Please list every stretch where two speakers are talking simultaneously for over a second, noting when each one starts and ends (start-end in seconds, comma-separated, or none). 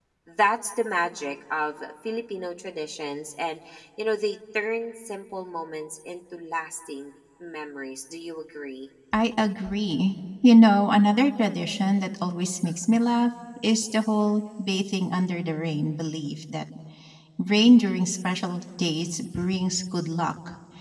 none